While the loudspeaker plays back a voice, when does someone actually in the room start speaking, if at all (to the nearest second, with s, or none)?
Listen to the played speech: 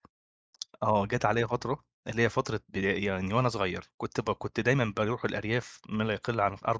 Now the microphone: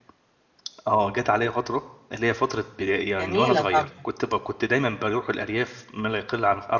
3 s